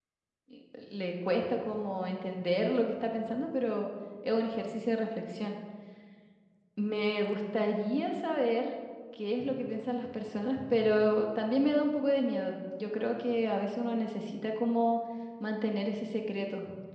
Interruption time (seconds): none

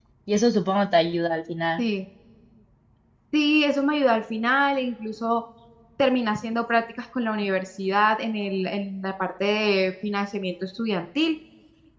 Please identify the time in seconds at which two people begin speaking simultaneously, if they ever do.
none

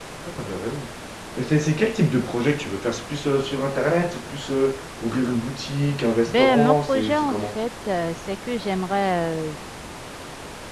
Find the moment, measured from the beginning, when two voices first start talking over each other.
6.3 s

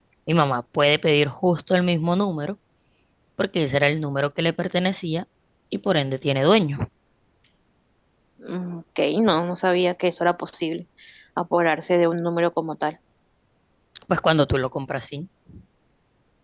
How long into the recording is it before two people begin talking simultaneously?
none

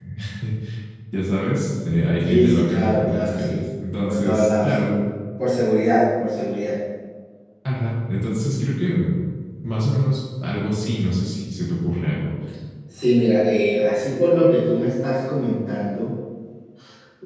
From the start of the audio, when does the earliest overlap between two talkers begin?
2.3 s

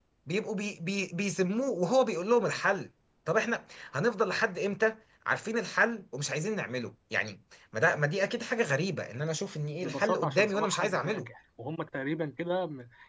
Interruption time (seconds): 9.8 s

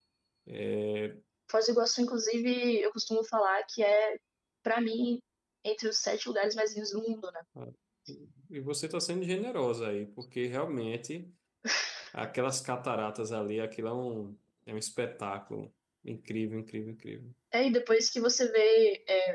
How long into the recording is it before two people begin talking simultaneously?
none

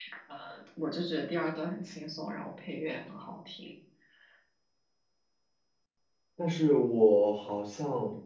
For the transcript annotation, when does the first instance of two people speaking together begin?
none

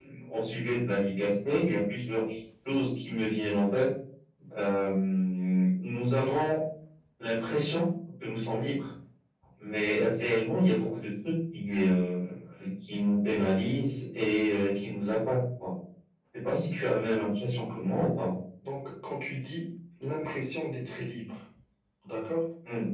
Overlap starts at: none

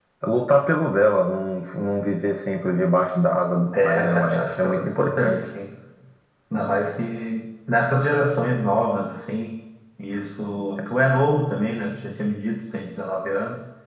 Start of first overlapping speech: 3.7 s

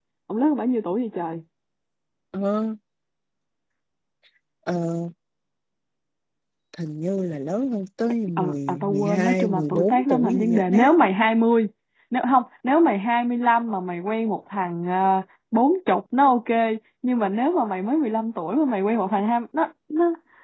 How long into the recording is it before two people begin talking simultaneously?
8.4 s

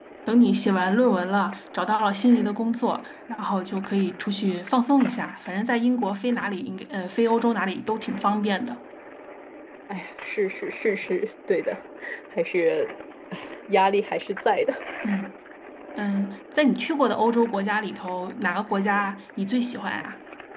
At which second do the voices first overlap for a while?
none

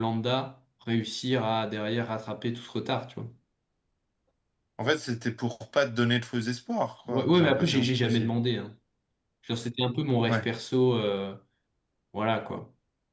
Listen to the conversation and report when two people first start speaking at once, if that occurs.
7.1 s

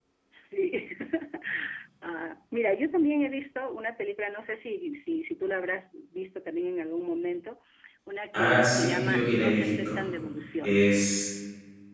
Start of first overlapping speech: 8.3 s

